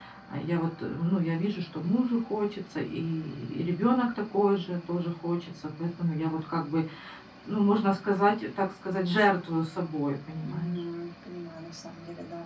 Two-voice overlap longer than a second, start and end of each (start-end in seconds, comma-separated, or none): none